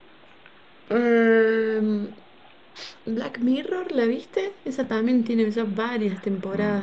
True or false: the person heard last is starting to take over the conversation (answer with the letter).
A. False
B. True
B